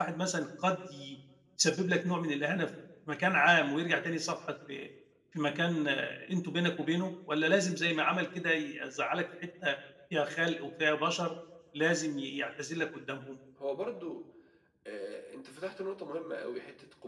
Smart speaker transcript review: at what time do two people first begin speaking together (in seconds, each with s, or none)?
none